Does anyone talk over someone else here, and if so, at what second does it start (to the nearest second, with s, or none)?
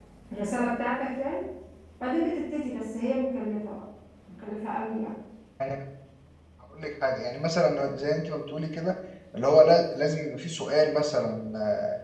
none